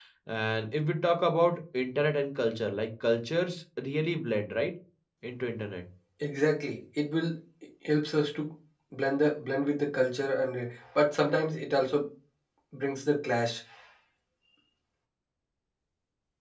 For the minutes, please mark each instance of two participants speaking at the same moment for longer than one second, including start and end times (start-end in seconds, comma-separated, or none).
none